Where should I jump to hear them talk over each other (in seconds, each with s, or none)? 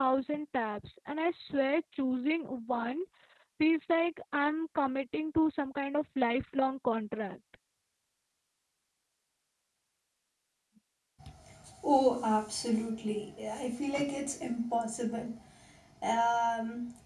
none